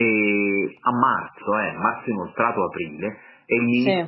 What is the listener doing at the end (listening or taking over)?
listening